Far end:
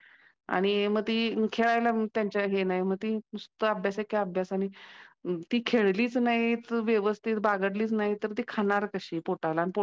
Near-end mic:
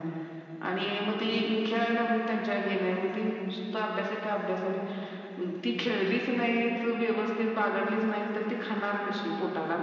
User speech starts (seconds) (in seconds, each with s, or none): none